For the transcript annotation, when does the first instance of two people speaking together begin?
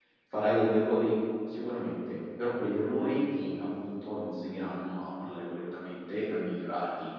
none

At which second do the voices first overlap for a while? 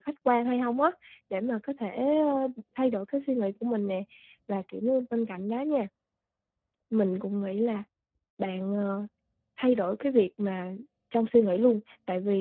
none

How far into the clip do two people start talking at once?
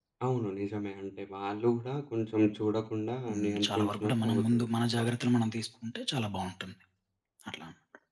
3 s

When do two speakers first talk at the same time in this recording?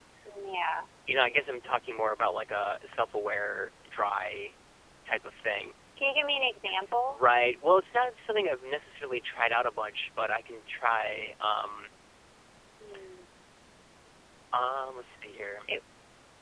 none

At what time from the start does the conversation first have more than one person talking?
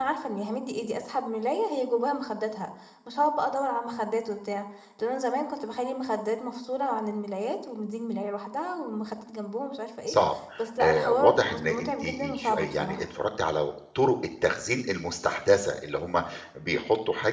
11 s

